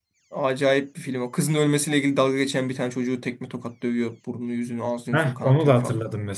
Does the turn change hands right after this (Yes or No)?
Yes